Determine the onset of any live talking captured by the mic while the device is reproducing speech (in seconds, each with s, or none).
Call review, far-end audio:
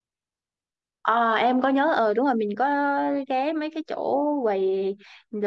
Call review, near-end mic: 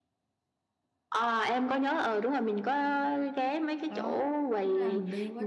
3.9 s